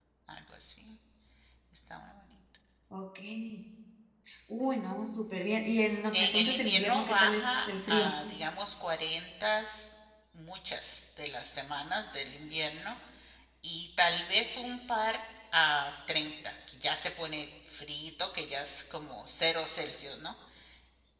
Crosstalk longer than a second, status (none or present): present